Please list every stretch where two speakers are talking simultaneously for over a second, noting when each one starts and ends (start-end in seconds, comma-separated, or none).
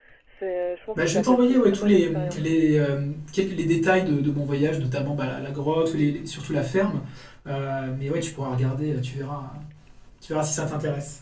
0.9-2.5